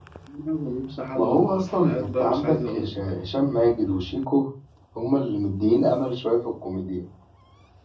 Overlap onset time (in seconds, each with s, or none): 1.2 s